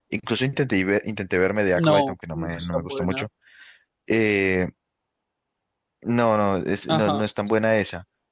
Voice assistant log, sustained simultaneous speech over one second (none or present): present